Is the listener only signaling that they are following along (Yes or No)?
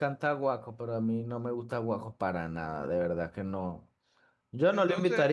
Yes